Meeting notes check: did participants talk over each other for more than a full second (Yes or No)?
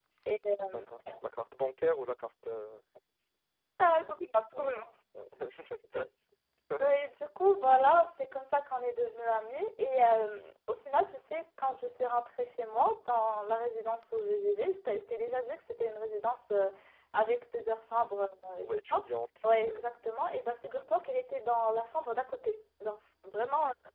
No